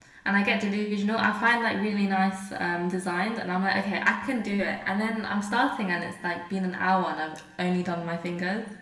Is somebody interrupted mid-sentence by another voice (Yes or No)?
No